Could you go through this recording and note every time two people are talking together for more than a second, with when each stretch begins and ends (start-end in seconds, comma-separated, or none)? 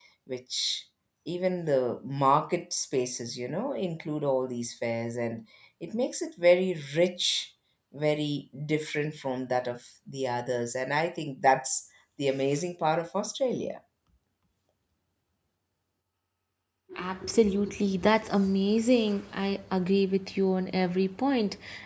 none